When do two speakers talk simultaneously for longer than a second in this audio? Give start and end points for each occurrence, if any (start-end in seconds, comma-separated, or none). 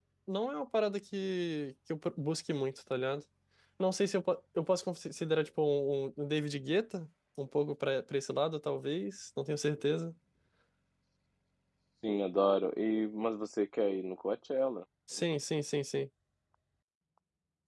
none